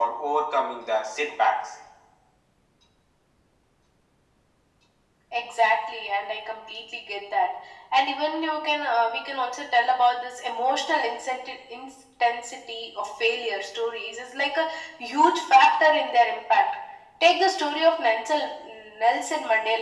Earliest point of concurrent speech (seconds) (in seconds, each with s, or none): none